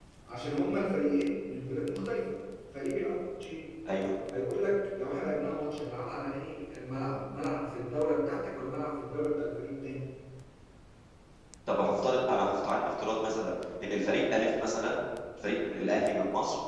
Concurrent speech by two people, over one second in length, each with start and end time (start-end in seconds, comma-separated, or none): none